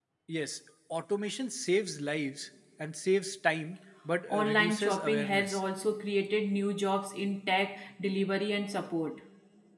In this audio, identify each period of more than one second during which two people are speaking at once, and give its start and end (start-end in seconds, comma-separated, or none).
4.3-5.6